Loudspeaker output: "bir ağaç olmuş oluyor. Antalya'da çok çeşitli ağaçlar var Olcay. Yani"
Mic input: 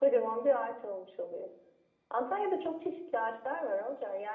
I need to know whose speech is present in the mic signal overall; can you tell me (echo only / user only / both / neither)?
echo only